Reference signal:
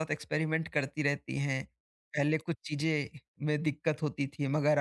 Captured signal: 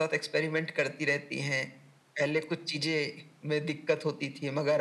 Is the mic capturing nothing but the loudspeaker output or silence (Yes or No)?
Yes